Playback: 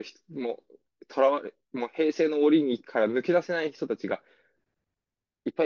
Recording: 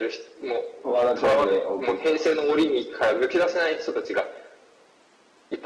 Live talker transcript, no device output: 和田くんでお送りします。

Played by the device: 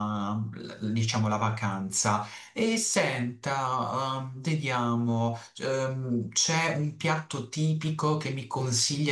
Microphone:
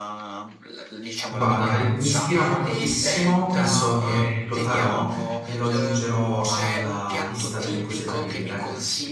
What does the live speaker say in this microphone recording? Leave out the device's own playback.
Guarda, beh, mi ispira moltissimo, penso che lo farò e lo aggiungerò alla lista delle cose da vedere.

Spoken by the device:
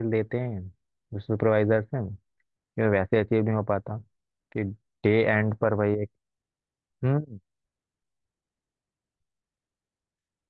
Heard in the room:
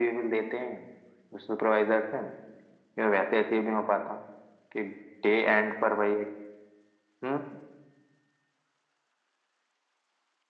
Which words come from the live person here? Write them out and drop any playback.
none

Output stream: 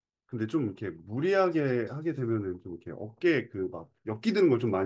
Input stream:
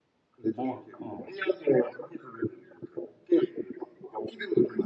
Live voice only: 뭐, 어.

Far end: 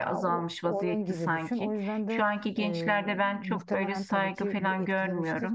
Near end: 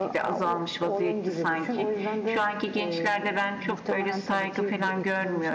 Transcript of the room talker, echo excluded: none

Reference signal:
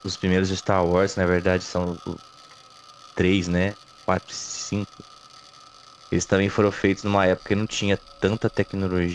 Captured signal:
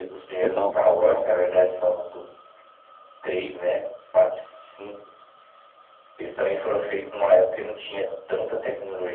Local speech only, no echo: total, total.

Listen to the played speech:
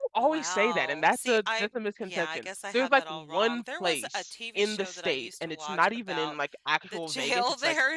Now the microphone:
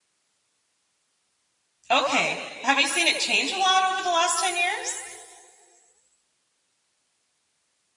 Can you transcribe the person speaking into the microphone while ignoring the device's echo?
Okay. Have you seen it change a lot over the last 10 years?

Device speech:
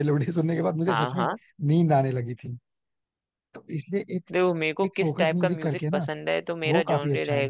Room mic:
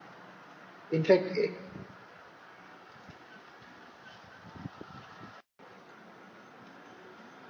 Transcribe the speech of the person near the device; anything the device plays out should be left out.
इनफैक्ट

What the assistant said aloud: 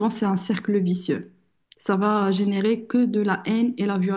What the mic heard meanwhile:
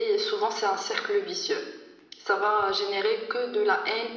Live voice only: none

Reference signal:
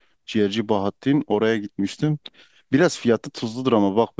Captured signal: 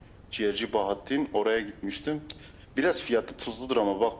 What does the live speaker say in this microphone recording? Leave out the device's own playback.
none

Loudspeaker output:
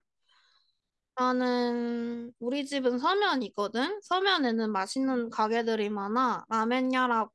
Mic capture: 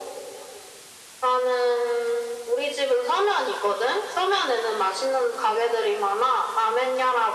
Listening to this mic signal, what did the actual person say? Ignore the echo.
none

